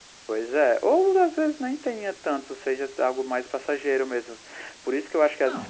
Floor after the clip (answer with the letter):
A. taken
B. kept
B